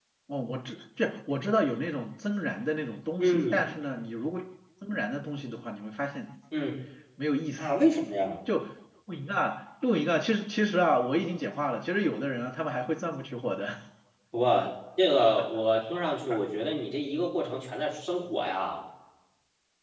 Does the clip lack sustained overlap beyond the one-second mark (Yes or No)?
Yes